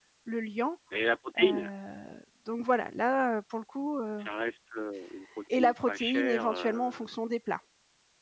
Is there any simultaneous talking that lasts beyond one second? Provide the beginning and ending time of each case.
5.5-7.0

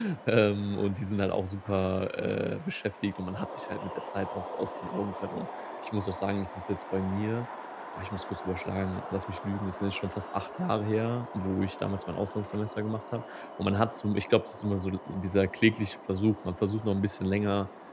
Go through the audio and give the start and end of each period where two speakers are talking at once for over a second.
none

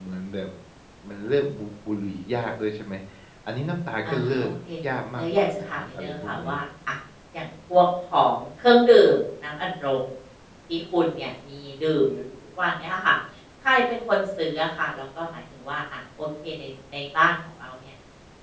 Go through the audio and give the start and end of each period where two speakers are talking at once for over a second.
5.2-6.5

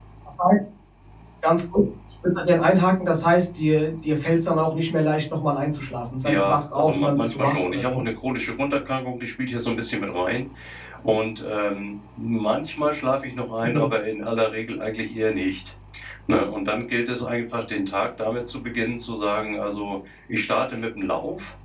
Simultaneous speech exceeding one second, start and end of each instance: 6.2-8.0

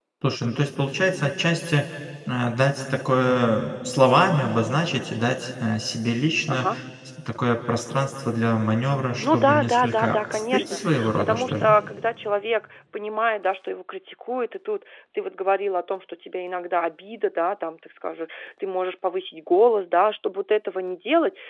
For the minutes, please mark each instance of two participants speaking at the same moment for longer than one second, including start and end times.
9.2-11.7

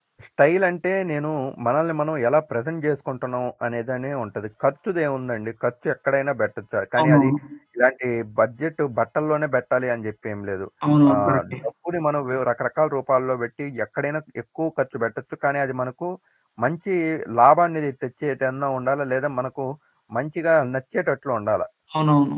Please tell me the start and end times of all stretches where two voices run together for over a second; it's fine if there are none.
none

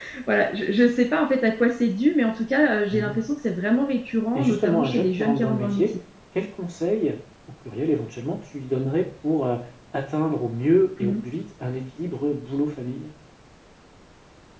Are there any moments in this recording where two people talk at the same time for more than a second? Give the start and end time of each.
4.3-5.9

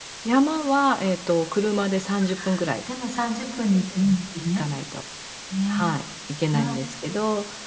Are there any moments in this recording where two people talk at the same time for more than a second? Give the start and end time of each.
none

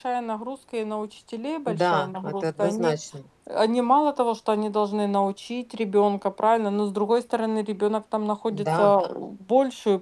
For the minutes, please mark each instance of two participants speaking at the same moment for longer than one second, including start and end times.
1.7-2.9

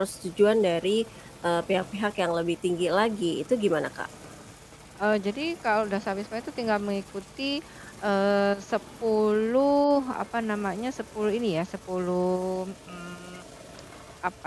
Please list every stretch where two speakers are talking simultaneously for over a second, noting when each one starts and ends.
none

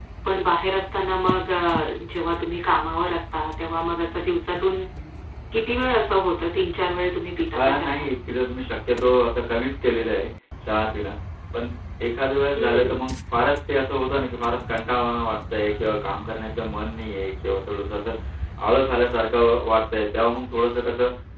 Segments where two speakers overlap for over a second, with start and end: none

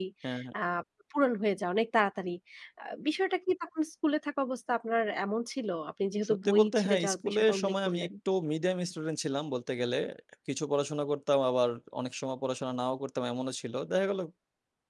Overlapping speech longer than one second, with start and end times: 6.3-8.1

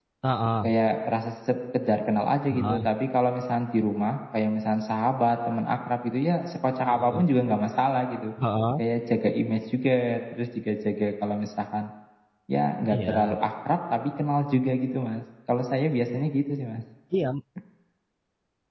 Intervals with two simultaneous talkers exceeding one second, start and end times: none

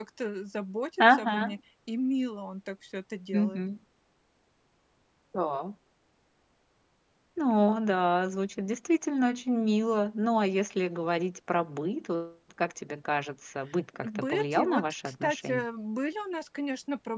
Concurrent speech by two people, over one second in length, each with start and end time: 13.9-15.6

